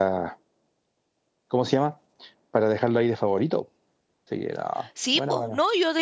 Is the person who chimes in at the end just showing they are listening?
No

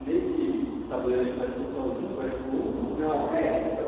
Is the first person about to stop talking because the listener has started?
Yes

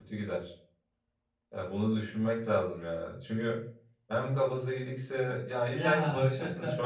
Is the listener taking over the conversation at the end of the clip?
No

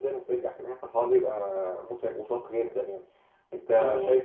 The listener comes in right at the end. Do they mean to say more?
No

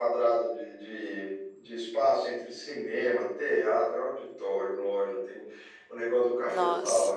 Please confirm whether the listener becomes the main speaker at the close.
No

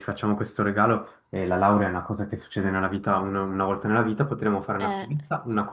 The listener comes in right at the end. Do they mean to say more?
No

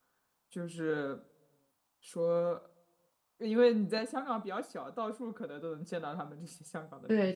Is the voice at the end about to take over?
Yes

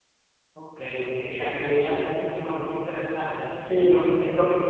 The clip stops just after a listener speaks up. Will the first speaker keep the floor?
Yes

